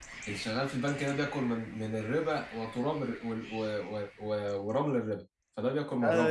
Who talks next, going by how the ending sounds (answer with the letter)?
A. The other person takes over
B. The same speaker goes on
A